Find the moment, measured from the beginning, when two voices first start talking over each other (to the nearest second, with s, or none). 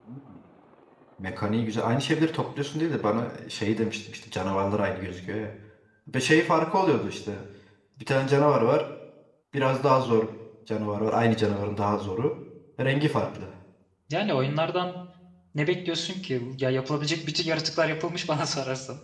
none